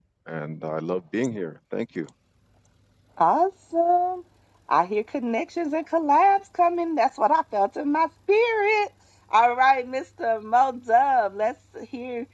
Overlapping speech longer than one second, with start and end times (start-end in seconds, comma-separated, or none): none